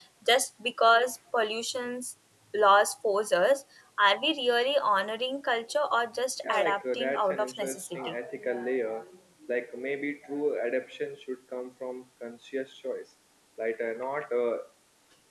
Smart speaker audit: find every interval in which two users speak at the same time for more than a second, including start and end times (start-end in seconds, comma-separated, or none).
6.5-8.1